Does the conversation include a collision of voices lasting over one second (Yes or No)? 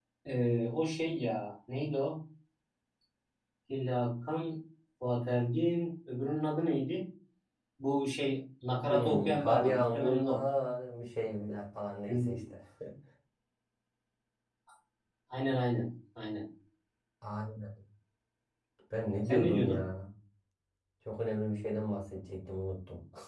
Yes